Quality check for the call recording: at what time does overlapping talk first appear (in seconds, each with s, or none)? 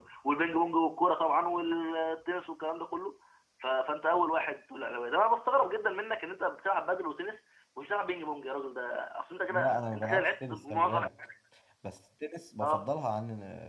9.5 s